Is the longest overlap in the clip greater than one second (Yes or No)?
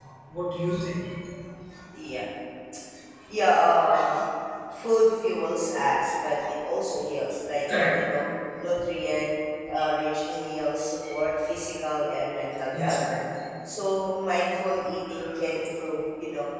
No